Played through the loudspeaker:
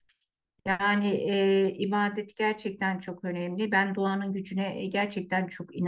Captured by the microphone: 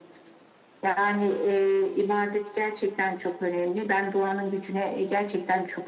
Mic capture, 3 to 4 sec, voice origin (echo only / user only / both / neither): echo only